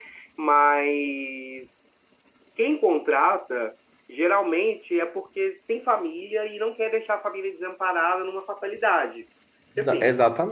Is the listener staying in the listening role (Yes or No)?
No